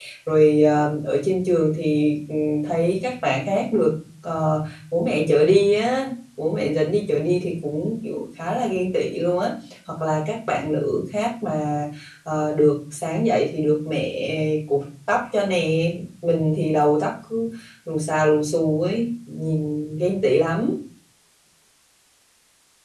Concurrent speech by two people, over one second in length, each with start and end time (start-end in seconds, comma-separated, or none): none